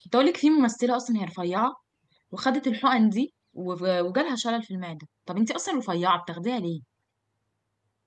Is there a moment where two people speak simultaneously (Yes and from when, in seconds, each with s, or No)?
No